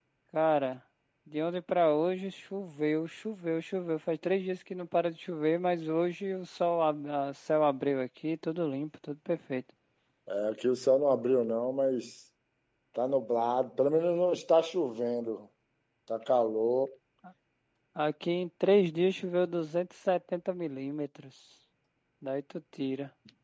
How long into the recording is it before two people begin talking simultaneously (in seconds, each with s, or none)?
none